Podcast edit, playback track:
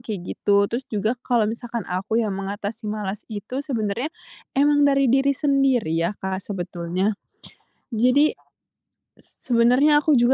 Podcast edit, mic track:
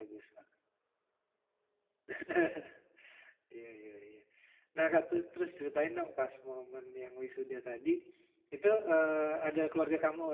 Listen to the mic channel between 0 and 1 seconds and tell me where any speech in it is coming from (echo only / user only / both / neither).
user only